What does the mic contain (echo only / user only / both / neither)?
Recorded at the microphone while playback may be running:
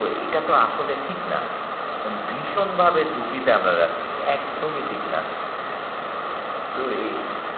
echo only